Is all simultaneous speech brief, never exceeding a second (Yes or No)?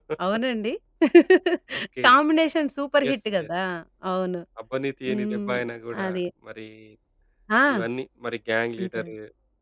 Yes